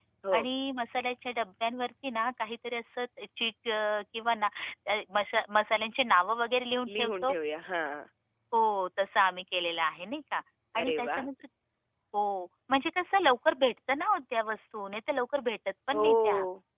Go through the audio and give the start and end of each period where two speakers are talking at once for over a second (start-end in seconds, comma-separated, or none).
none